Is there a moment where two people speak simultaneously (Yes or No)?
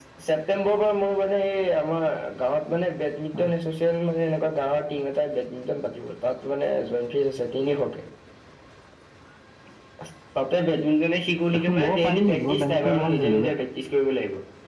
Yes